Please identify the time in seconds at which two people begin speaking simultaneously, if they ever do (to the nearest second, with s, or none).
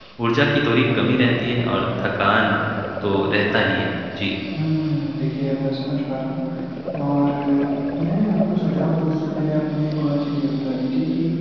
none